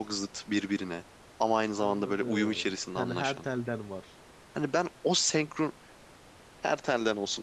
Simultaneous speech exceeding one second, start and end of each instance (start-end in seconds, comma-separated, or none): 1.8-3.5